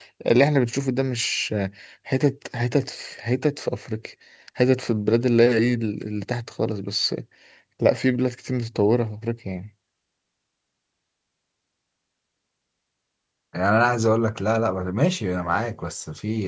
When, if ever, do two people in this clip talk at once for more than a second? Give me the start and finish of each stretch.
none

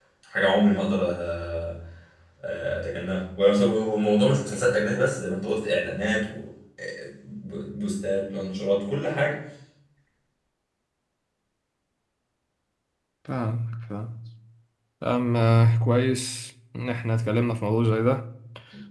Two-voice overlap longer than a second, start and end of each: none

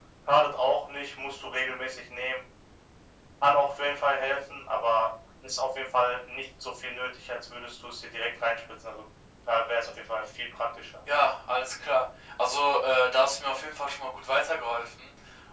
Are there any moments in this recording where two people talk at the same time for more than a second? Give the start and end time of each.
none

